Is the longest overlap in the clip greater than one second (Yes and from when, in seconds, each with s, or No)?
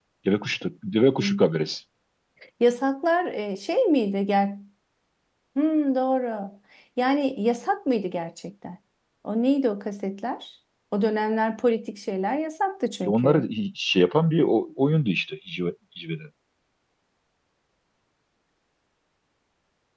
No